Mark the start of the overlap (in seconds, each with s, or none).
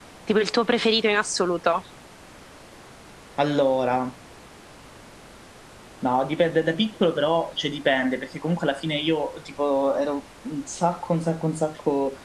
none